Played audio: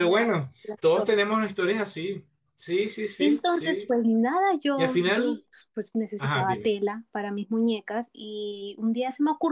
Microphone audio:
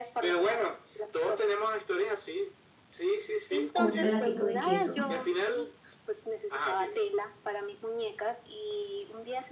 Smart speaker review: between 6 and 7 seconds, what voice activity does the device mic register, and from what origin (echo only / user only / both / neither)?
echo only